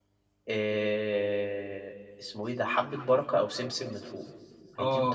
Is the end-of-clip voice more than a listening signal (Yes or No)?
Yes